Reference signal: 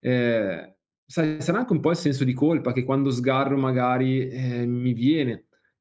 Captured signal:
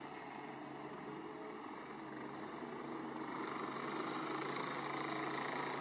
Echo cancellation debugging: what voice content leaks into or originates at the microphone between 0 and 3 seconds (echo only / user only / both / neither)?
neither